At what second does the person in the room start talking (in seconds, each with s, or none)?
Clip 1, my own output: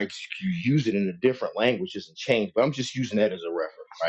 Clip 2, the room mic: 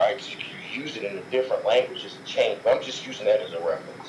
none